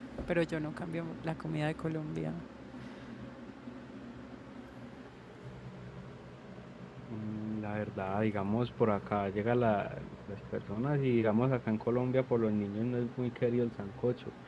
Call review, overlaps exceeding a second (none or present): none